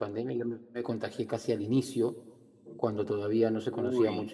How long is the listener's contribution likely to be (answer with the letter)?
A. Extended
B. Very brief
B